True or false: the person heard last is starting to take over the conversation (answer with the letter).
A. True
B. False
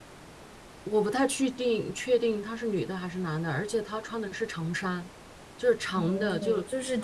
A